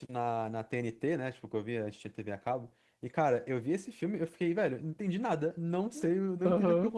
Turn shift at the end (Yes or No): No